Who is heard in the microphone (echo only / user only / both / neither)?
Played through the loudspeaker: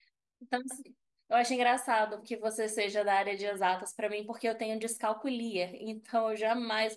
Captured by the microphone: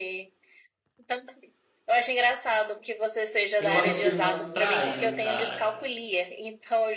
both